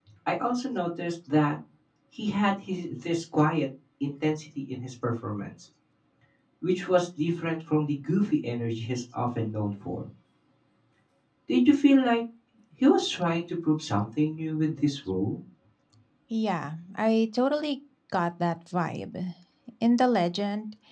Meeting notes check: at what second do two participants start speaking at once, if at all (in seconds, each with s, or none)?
none